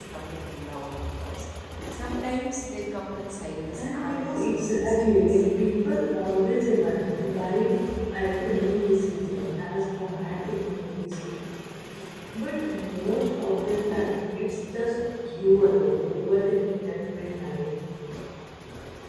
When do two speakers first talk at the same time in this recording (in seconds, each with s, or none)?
3.8 s